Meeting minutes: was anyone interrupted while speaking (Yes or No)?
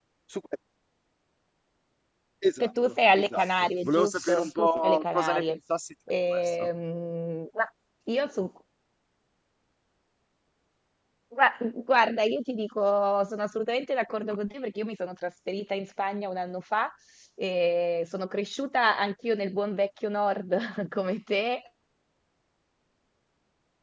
Yes